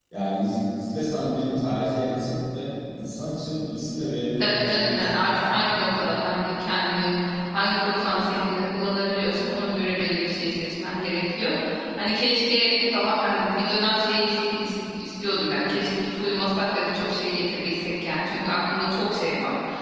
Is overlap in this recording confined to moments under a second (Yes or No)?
No